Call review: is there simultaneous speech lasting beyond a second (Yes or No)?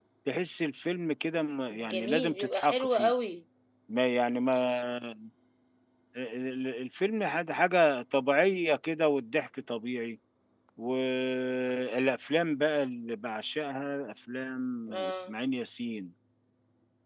Yes